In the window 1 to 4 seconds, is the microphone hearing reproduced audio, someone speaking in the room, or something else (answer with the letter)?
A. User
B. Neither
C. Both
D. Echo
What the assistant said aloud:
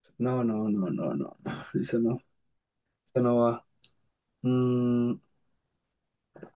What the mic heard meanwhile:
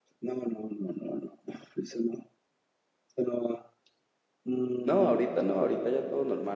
D